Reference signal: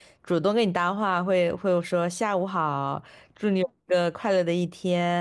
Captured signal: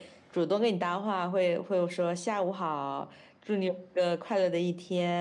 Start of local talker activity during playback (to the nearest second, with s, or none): none